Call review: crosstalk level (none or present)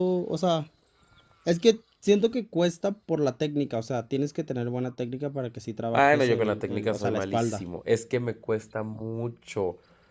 present